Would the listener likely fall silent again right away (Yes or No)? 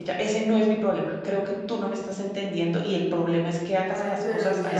No